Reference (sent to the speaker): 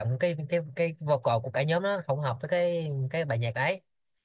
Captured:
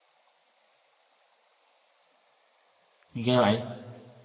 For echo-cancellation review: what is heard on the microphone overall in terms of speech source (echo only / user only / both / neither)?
user only